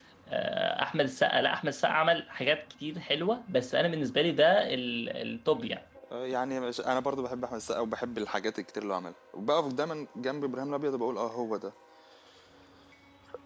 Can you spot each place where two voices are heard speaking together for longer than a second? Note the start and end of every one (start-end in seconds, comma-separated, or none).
none